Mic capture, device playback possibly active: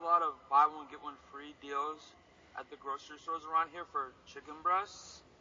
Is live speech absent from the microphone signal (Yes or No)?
Yes